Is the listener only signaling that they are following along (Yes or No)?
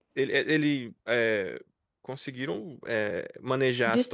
Yes